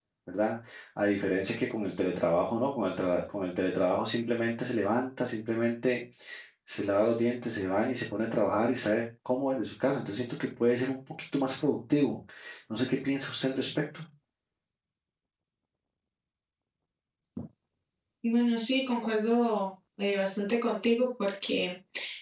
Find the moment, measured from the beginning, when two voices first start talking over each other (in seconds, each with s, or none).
none